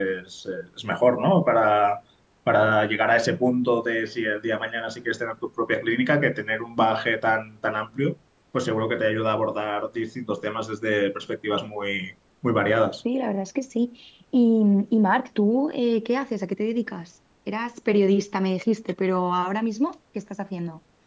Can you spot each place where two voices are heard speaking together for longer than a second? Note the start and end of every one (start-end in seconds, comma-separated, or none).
none